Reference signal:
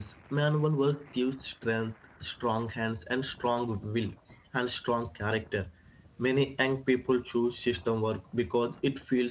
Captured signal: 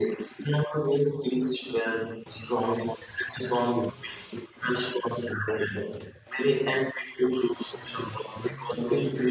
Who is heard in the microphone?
both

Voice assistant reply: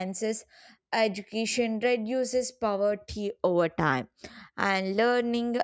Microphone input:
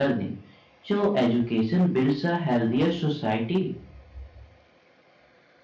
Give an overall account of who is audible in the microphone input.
user only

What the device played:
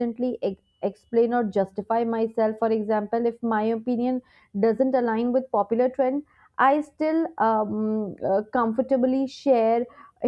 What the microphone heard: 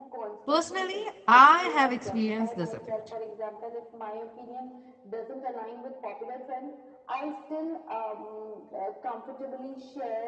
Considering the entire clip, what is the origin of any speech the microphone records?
both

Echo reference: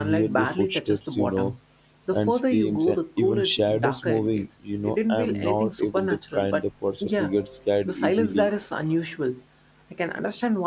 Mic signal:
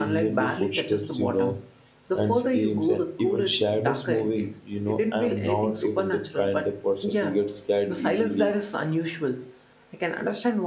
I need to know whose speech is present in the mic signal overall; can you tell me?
echo only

